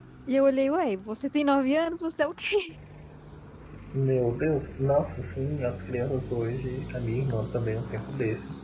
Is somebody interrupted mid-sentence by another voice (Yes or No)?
No